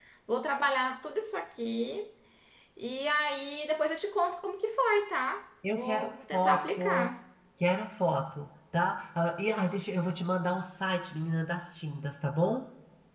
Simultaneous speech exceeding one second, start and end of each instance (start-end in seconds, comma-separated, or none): 5.7-7.1